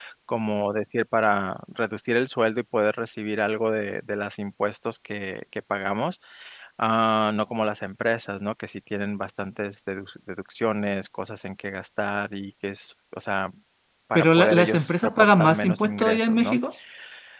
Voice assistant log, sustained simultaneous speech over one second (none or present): present